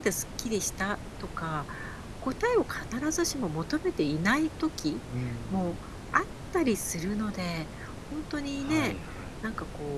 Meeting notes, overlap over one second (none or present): none